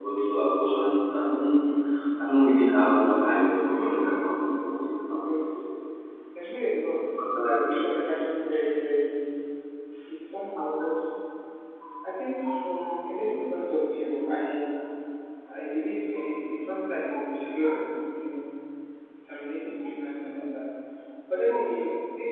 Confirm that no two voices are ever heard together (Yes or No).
No